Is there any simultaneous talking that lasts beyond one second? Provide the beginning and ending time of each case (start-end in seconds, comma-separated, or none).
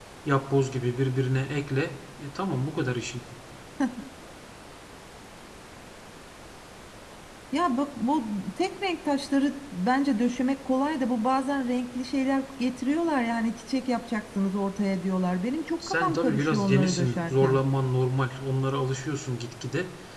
15.9-17.6